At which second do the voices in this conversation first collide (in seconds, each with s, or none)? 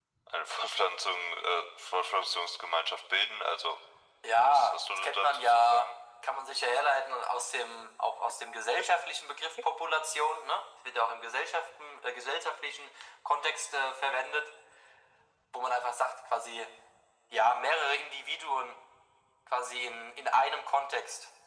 4.5 s